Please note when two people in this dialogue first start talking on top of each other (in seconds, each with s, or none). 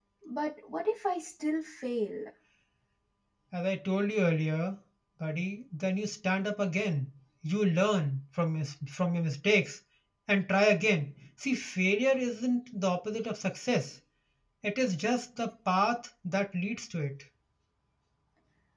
none